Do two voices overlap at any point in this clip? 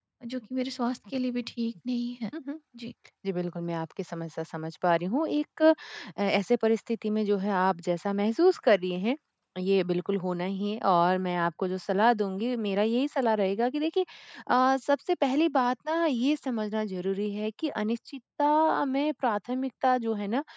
No

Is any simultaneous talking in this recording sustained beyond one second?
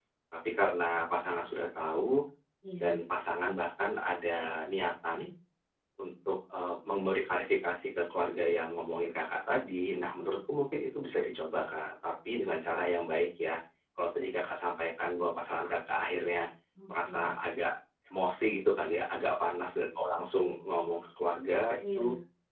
No

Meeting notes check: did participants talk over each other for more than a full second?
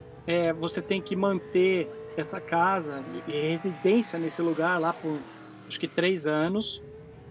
No

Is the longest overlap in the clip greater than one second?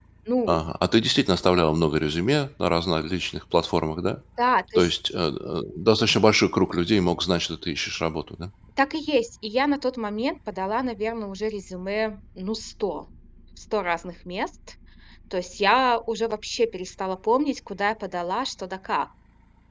No

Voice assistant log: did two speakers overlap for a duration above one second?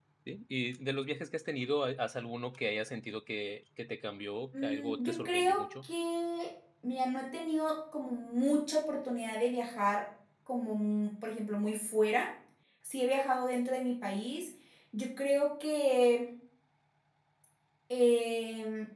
Yes, from 4.5 s

